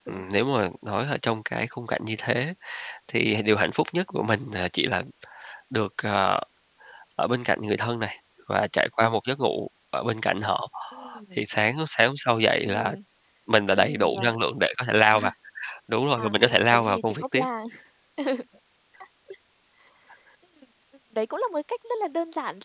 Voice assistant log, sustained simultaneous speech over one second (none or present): present